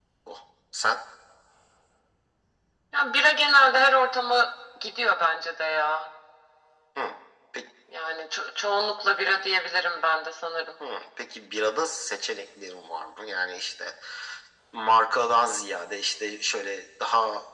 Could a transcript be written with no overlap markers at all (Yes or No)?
Yes